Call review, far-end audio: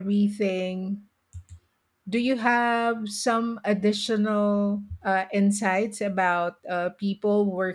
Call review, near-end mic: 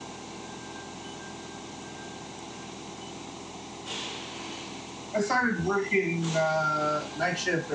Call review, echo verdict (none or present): none